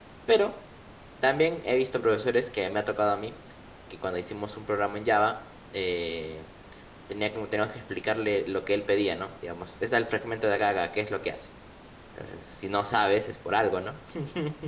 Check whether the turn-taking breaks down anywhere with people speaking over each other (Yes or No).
No